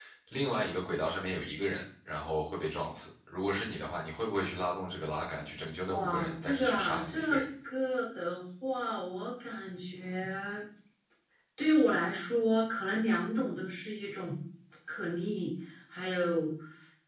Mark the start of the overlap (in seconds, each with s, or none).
5.9 s